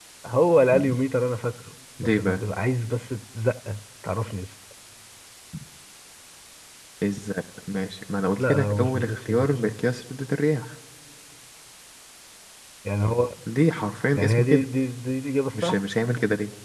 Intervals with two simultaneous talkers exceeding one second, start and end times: 8.4-9.7

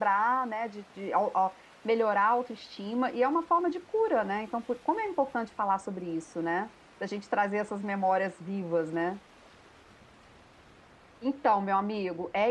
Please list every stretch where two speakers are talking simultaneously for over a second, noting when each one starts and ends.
none

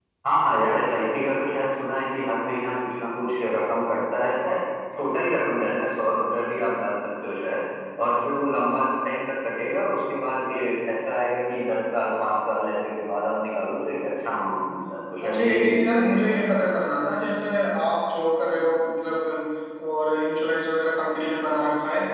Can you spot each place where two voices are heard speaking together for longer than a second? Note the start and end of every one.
15.2-16.7

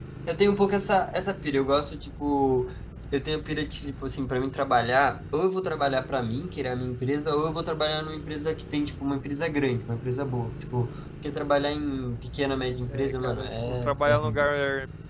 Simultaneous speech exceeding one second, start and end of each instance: 12.9-14.5

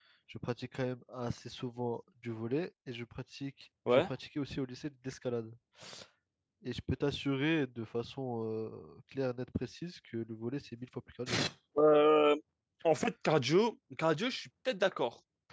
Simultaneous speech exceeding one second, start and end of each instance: none

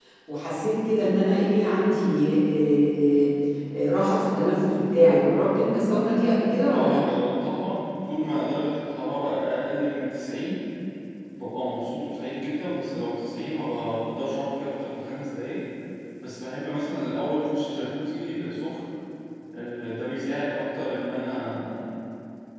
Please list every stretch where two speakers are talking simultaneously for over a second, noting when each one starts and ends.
none

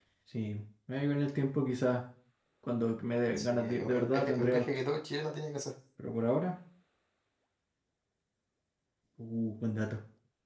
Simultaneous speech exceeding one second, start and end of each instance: 3.4-4.7

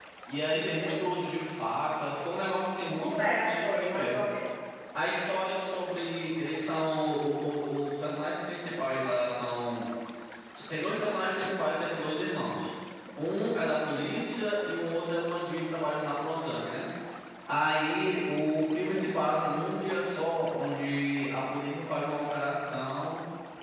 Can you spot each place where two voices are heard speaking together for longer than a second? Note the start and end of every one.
2.9-4.2

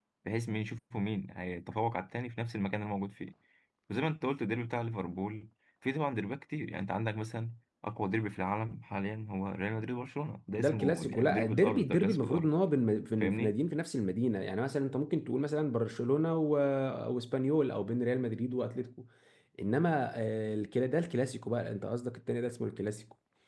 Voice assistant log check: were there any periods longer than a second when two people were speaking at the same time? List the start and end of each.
10.6-12.5

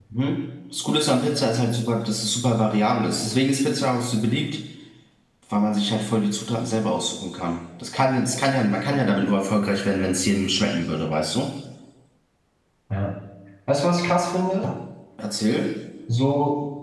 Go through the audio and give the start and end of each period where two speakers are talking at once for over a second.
none

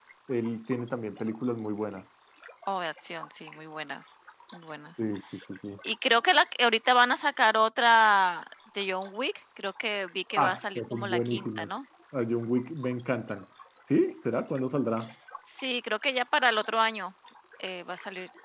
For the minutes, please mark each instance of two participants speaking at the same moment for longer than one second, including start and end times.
10.4-11.7

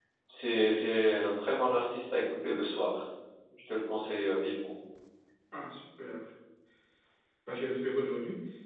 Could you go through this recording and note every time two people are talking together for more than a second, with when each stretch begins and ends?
none

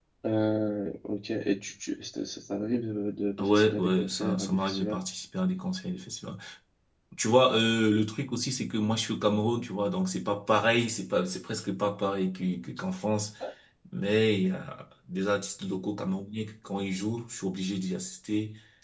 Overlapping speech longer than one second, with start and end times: 3.4-5.0

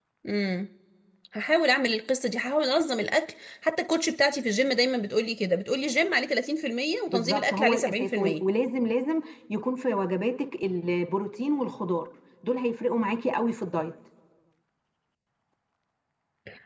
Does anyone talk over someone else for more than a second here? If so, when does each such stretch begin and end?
7.1-8.4

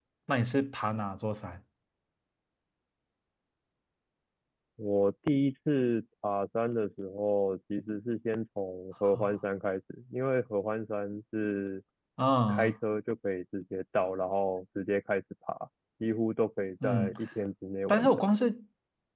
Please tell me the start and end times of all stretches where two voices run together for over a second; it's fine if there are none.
none

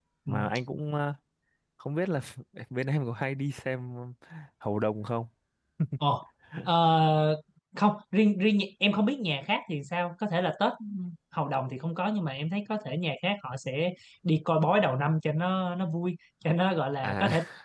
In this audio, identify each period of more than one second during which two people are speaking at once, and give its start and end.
none

